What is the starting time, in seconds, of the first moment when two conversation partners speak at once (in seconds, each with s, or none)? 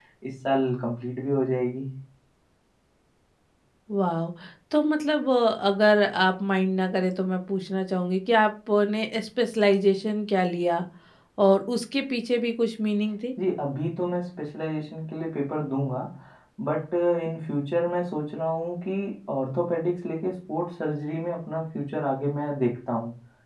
none